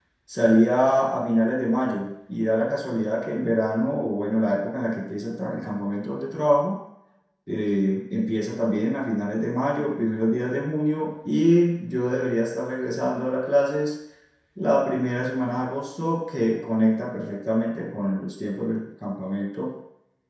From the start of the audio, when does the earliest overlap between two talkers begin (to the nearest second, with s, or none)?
none